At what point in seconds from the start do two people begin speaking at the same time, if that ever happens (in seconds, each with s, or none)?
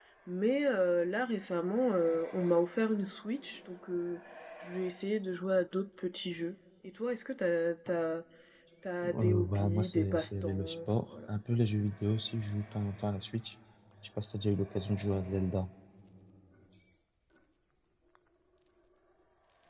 9.1 s